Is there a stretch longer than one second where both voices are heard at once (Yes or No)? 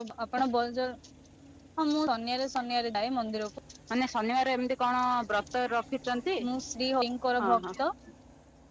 No